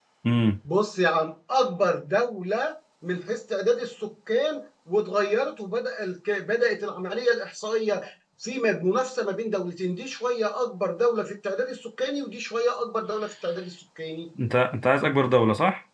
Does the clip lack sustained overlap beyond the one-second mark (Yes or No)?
Yes